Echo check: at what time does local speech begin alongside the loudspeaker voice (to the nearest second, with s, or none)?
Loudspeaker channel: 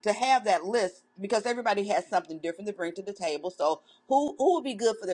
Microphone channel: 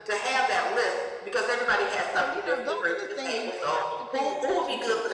2 s